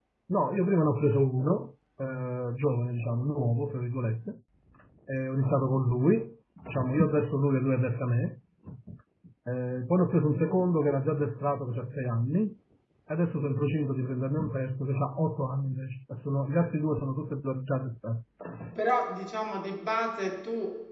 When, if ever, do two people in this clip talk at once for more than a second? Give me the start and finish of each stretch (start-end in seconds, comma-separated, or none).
none